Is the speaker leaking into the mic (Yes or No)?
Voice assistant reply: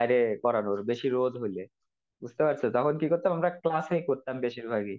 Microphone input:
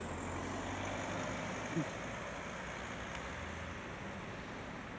No